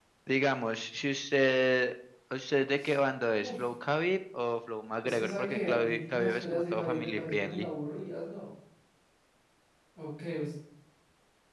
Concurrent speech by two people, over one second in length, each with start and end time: 5.0-7.7

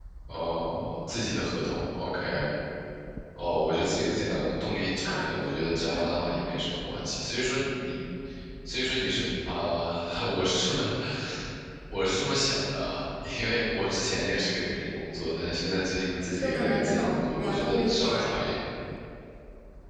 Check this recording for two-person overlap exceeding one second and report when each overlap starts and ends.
16.4-18.5

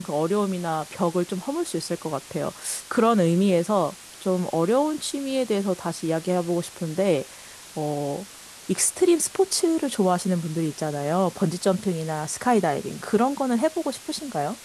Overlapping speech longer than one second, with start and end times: none

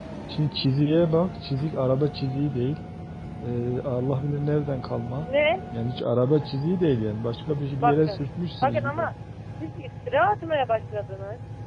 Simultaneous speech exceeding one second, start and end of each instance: none

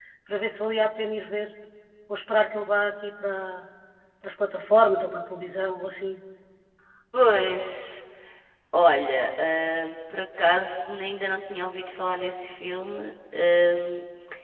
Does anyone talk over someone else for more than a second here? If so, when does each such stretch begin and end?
none

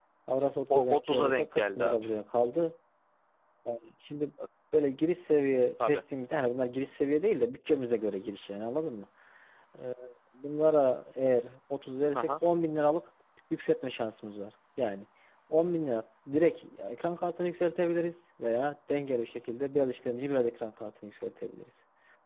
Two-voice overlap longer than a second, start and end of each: 0.7-1.9

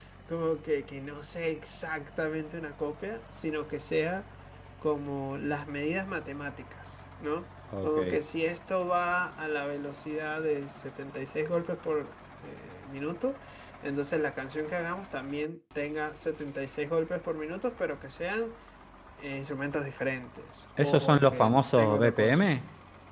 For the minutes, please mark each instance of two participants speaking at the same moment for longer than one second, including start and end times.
20.8-22.4

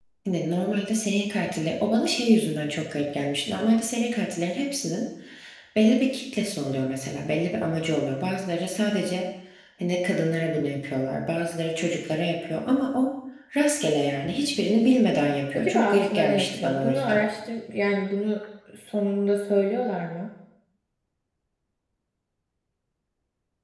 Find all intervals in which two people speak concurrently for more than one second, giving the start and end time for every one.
15.5-17.3

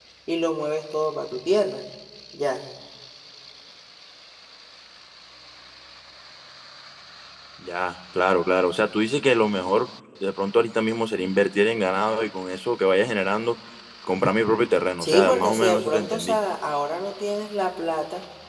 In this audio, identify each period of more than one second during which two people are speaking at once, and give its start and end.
15.0-16.4

